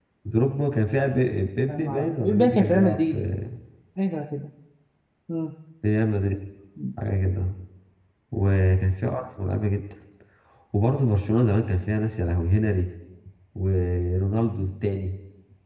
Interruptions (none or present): present